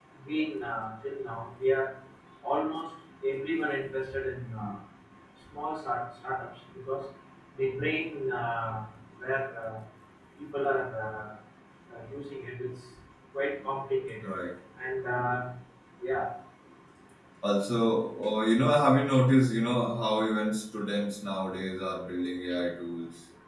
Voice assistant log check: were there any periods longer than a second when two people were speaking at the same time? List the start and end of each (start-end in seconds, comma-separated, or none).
none